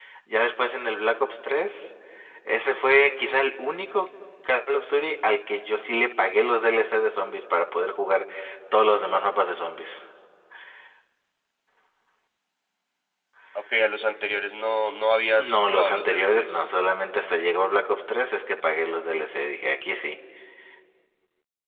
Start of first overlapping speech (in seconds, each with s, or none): 15.4 s